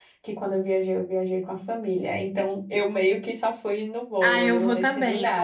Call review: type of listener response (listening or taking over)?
taking over